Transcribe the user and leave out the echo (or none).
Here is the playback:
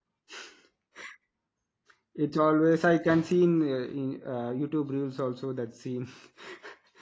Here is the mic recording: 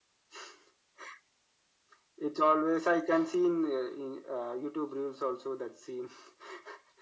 none